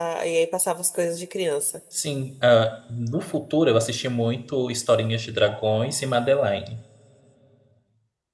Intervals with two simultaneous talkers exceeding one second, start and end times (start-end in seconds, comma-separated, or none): none